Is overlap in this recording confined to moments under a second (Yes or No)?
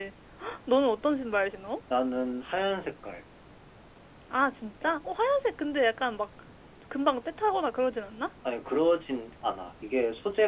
Yes